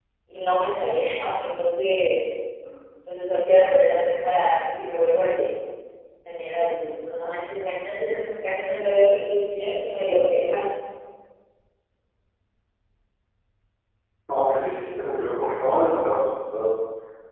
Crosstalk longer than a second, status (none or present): none